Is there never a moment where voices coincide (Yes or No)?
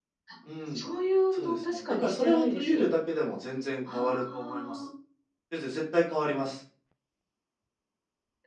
No